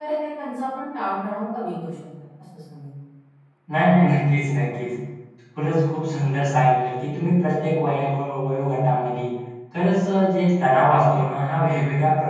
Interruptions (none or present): none